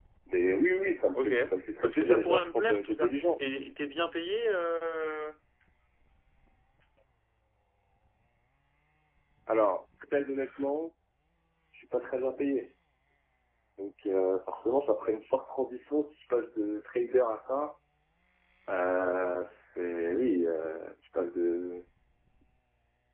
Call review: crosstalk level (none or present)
present